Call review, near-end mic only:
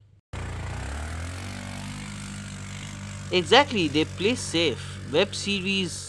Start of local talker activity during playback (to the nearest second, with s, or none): 3 s